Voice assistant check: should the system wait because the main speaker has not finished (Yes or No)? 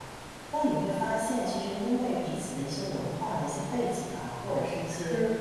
Yes